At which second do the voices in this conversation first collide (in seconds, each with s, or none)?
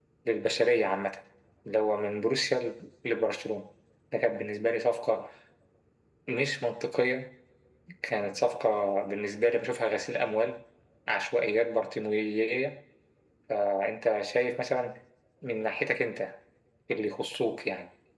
none